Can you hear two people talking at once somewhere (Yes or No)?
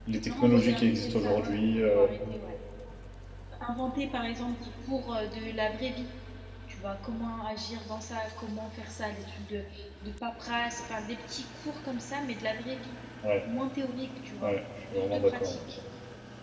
Yes